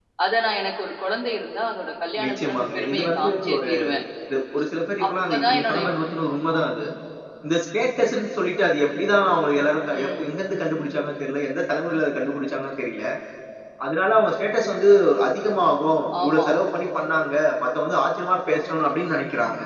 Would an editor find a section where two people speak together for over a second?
Yes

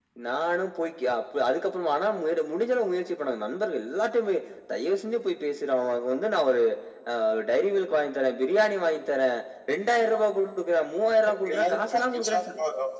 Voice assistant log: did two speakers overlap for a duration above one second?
Yes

